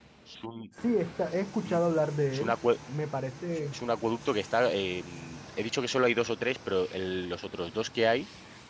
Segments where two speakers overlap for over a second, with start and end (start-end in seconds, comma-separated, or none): none